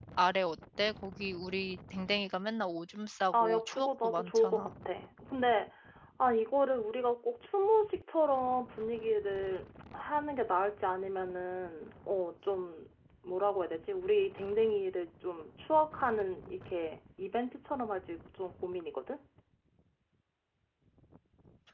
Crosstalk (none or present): present